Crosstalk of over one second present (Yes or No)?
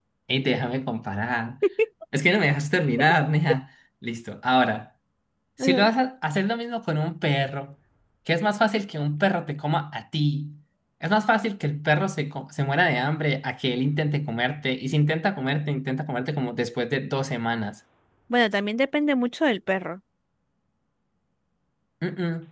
No